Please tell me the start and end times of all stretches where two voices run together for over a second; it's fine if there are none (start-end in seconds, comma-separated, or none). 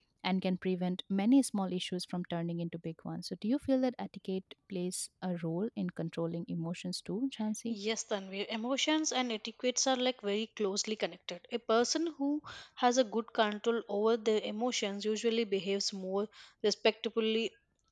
none